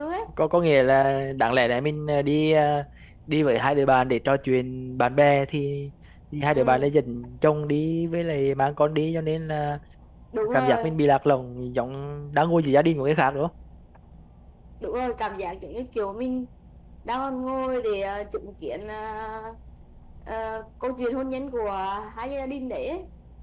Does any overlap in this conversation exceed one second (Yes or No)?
No